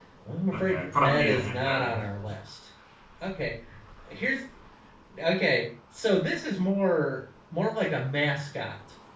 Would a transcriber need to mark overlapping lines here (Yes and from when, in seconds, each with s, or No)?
Yes, from 0.5 s